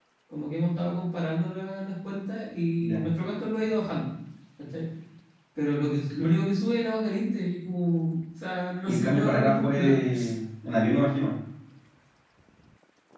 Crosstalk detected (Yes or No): Yes